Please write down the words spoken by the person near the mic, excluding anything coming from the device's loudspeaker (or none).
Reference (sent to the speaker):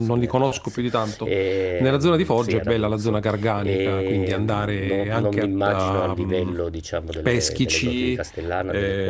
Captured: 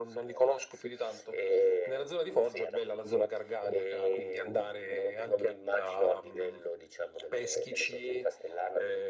none